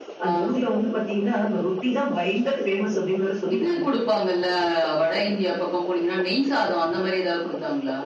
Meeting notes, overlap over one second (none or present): none